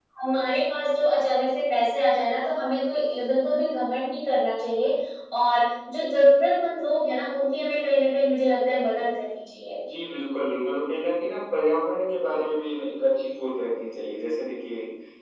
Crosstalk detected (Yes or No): No